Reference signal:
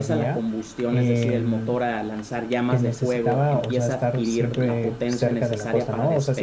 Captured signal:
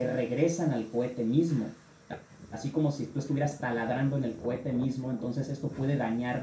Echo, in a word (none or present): none